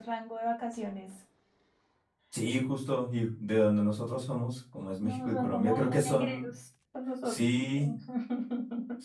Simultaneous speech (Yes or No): Yes